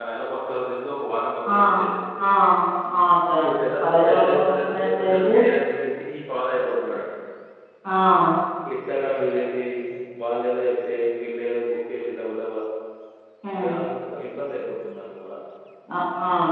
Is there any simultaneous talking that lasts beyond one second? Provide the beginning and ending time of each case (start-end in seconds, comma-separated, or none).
3.4-5.3